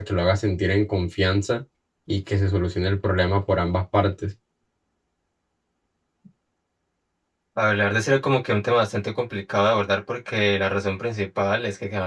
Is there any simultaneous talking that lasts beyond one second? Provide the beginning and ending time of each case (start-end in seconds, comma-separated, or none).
none